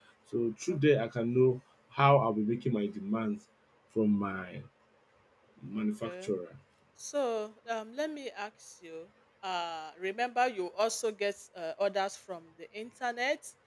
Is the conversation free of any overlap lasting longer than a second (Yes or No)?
Yes